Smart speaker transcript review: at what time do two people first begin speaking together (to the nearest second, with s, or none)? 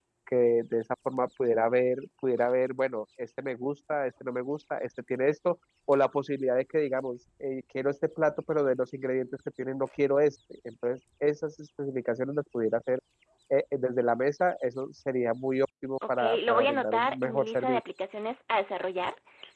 16 s